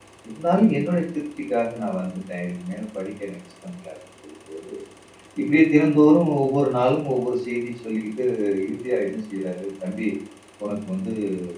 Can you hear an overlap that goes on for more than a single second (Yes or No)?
No